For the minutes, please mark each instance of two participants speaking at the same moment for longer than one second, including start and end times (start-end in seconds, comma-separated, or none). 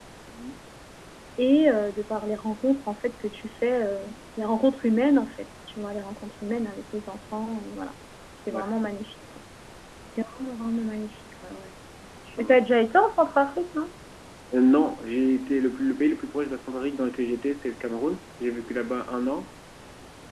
none